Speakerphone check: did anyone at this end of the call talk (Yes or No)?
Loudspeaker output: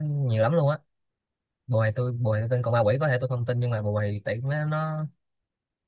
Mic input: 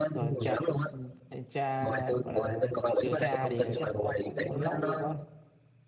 Yes